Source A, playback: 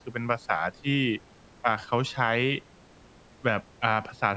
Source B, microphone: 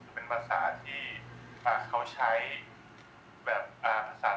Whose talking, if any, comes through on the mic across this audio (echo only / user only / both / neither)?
echo only